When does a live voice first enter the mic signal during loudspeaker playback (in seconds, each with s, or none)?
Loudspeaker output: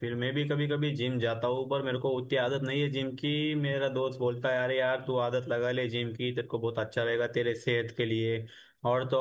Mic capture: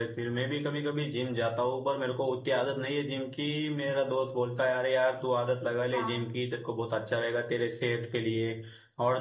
5.9 s